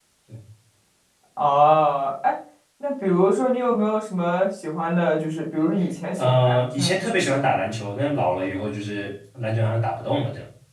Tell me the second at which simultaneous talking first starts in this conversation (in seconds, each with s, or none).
6.2 s